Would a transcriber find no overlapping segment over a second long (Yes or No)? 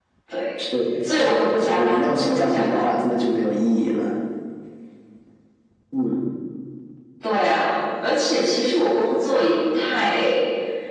No